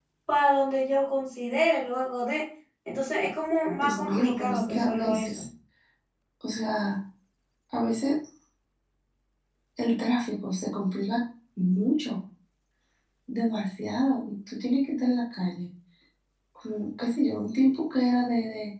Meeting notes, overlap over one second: present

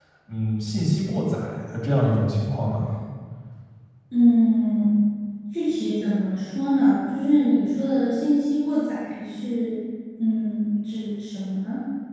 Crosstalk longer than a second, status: none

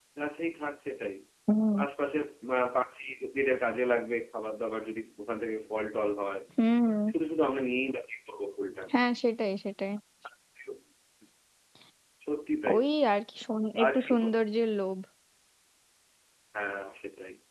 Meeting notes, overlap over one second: none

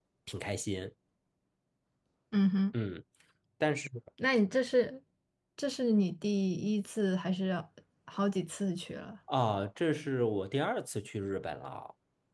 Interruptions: none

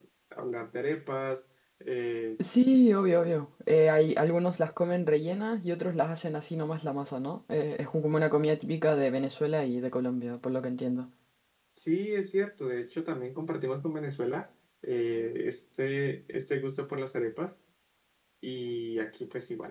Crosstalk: none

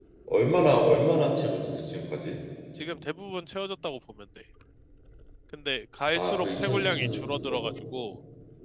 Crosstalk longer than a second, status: present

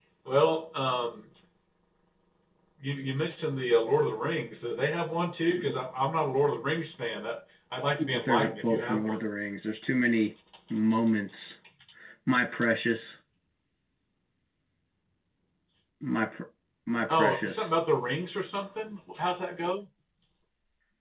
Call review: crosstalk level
present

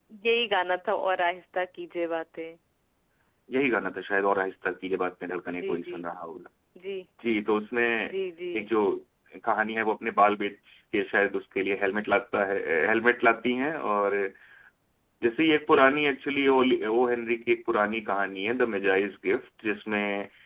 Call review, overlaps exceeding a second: none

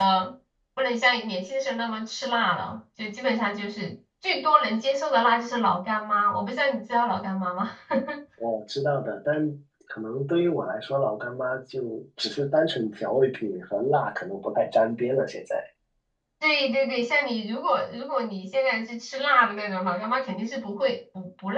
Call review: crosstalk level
none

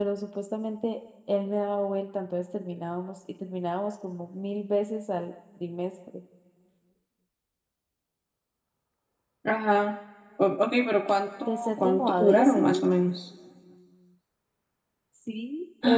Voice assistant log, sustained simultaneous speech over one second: present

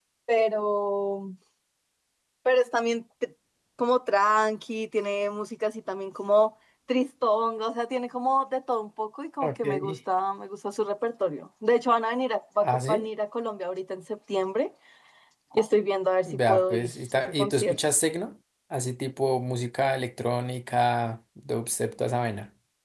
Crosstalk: present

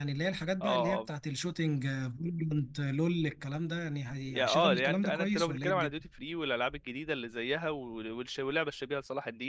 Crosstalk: present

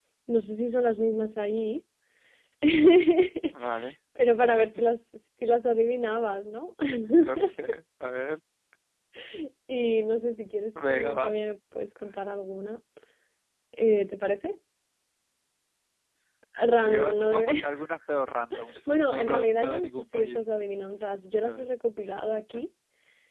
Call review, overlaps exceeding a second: present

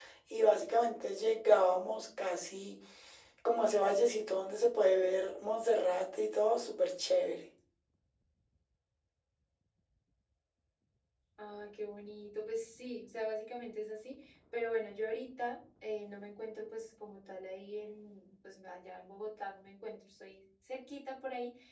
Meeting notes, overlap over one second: none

